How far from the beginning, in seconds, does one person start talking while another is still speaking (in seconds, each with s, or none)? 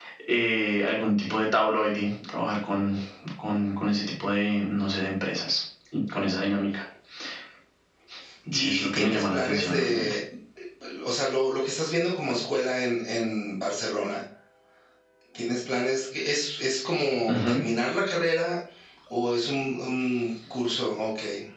8.5 s